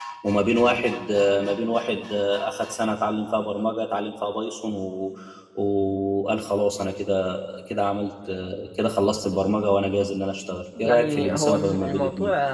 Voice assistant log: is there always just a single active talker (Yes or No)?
No